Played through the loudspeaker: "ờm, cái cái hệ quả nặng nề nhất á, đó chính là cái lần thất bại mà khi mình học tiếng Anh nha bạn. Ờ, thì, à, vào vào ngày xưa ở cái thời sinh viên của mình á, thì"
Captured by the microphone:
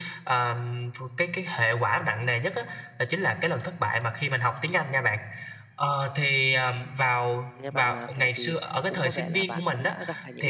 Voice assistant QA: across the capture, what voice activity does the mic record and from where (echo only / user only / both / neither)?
both